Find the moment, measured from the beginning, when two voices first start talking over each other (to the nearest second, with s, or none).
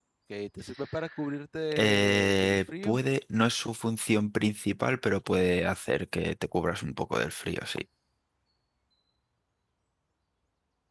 2 s